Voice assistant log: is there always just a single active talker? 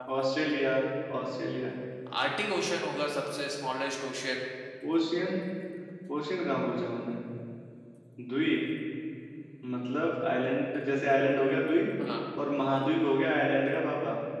Yes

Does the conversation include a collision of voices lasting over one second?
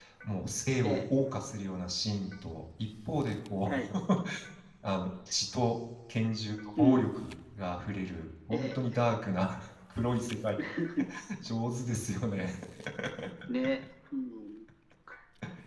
No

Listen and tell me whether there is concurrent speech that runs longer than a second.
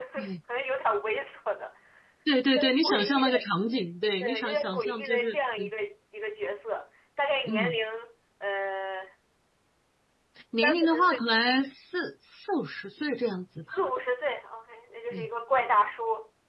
Yes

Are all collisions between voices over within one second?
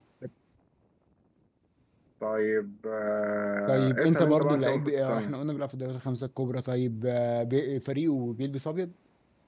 No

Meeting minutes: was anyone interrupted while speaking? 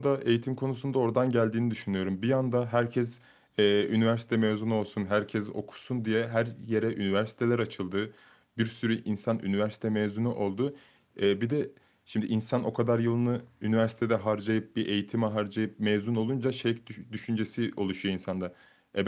No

